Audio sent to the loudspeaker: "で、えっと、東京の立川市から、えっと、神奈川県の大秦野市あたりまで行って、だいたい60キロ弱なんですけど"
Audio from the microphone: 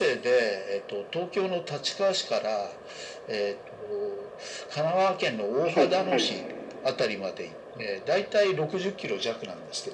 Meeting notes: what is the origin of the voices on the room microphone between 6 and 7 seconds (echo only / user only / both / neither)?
both